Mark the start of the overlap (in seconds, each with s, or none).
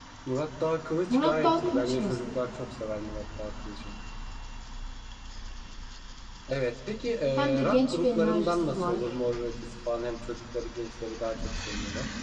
1.1 s